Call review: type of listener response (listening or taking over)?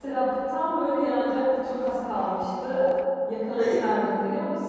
listening